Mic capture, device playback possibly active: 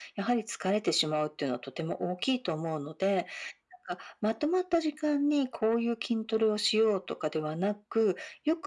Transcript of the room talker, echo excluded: none

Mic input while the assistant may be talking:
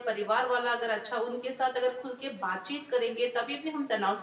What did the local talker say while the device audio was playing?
none

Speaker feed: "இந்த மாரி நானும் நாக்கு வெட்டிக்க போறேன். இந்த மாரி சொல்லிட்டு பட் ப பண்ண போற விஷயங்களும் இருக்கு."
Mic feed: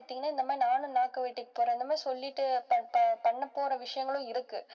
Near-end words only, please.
none

